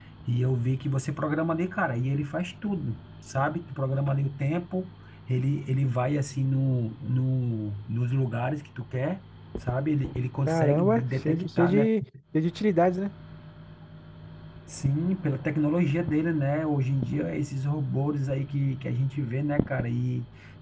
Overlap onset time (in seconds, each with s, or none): 10.5 s